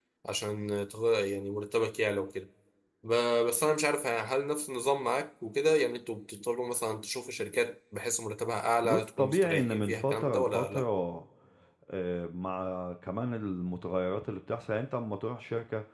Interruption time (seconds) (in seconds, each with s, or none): 8.8 s